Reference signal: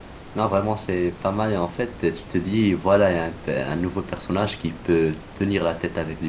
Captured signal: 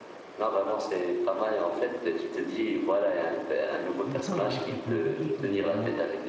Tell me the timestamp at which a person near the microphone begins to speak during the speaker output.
4.0 s

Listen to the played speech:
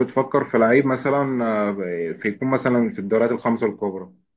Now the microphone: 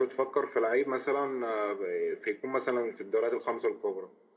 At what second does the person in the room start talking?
none

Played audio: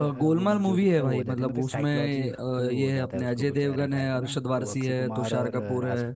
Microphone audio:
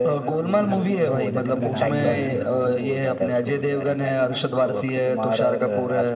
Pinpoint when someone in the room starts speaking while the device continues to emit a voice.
0.4 s

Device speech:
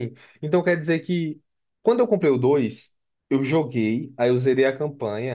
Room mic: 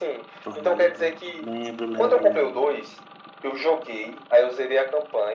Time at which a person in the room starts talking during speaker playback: 0.4 s

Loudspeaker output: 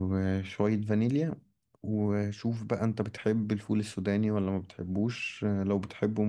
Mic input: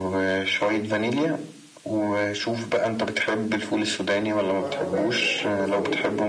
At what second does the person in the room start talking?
4.6 s

